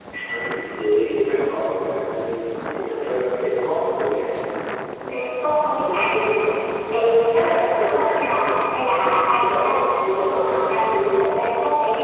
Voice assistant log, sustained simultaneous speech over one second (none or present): none